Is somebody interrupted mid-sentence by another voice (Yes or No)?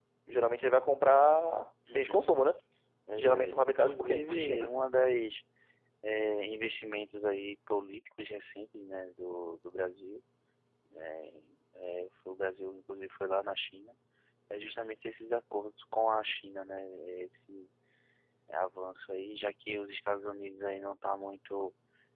Yes